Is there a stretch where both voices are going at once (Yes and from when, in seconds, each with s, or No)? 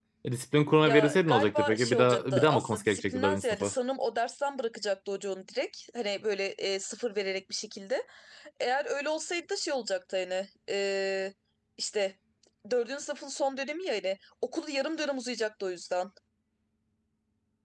Yes, from 0.8 s